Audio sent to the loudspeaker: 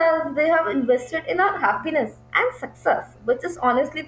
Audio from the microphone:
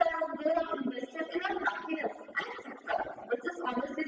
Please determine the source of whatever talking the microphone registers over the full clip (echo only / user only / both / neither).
echo only